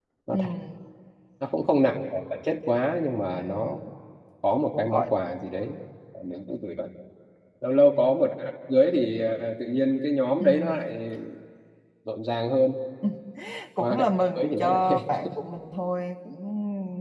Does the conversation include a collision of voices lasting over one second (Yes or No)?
Yes